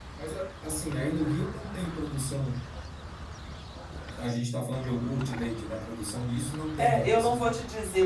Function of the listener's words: taking over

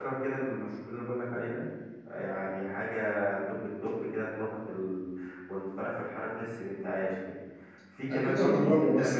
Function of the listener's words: taking over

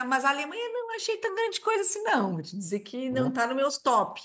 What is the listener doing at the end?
listening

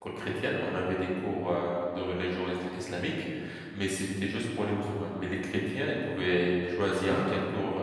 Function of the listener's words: listening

